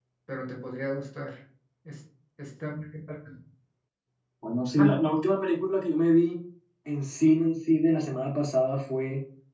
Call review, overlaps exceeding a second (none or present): none